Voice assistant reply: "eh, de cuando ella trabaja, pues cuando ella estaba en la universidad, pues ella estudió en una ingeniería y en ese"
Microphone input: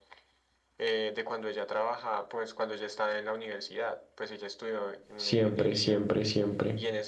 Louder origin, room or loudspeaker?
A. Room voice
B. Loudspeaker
A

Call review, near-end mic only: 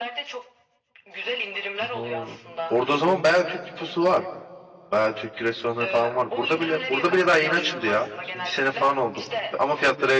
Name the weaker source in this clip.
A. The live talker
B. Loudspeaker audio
B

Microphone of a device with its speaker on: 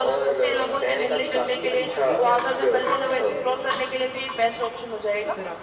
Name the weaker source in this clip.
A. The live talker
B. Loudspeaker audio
A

